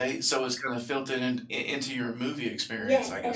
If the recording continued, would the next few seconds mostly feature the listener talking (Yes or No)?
Yes